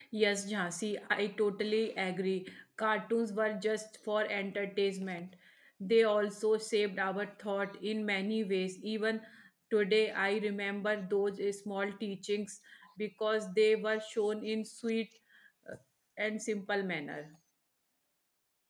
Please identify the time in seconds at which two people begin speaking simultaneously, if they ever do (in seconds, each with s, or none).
none